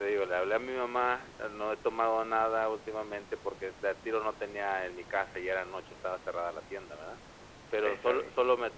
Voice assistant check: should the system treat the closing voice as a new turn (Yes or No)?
No